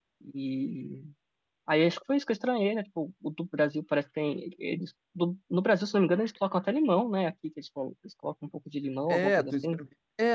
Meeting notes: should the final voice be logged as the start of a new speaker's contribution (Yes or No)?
Yes